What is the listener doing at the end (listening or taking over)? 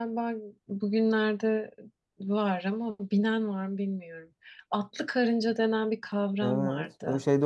taking over